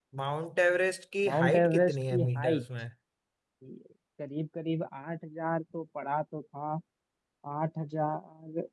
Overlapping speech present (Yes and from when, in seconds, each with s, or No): Yes, from 1.2 s